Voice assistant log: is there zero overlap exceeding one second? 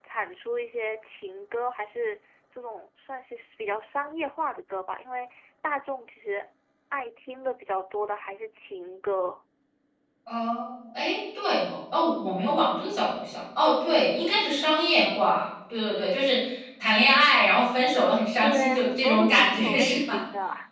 No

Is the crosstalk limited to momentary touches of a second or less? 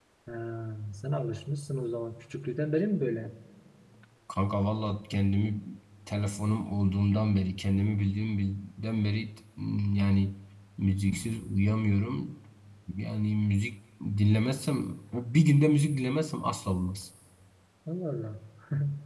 Yes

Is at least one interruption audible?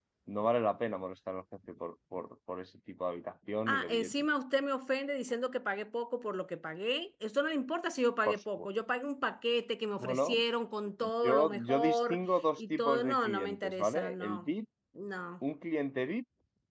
Yes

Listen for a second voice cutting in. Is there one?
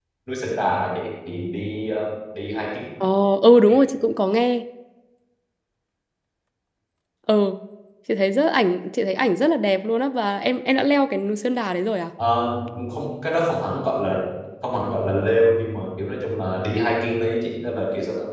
No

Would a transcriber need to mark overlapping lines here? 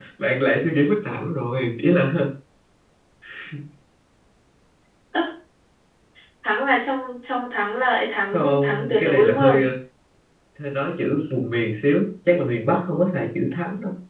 Yes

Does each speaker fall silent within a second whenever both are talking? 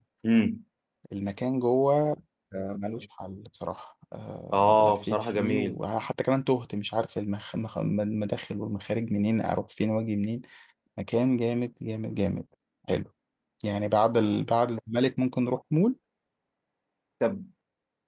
No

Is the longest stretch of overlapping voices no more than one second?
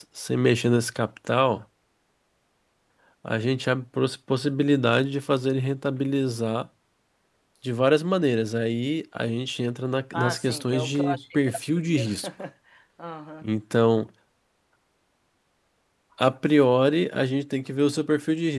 No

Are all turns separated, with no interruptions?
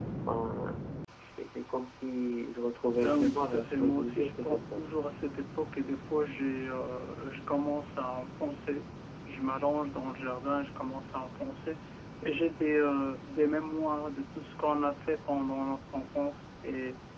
No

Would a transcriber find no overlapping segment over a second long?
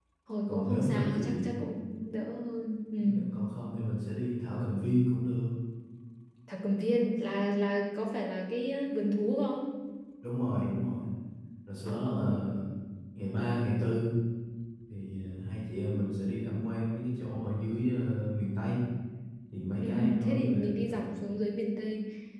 No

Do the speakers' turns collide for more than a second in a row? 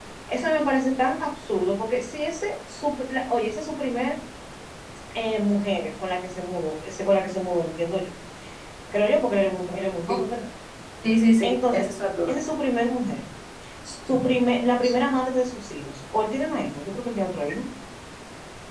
No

